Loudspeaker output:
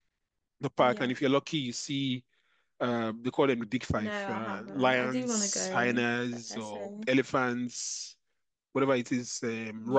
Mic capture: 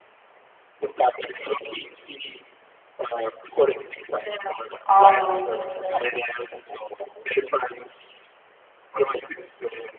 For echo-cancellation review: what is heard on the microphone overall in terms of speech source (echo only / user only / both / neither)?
both